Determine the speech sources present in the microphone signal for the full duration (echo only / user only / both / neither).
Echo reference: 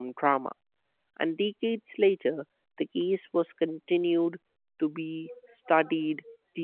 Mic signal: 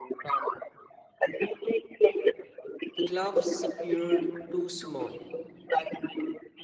both